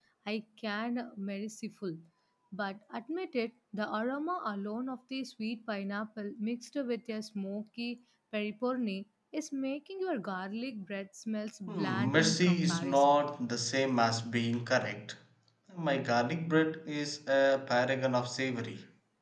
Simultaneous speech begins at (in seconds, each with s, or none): 11.7 s